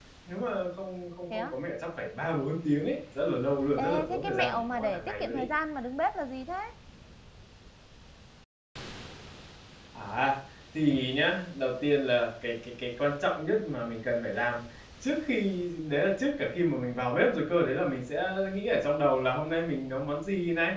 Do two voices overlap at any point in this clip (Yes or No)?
Yes